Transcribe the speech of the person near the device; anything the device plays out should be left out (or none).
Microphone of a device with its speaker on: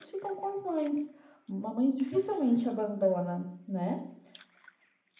none